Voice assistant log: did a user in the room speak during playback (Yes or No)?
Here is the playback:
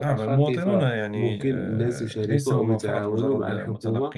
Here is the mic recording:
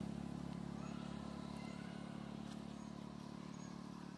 No